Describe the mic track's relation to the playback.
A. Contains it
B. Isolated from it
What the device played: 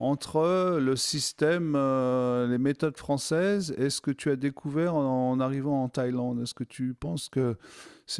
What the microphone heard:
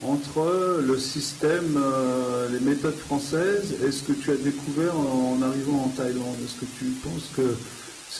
A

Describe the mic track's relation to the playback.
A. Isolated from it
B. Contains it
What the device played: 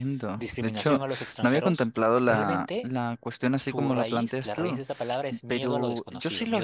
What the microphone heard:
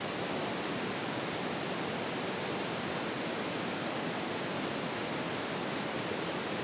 A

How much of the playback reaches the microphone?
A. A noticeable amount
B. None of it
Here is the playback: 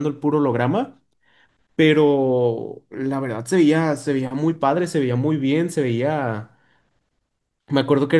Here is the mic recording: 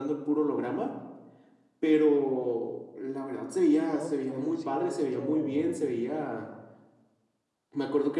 A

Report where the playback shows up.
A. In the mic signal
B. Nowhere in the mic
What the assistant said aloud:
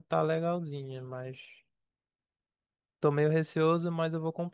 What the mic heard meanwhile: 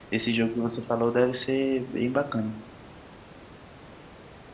B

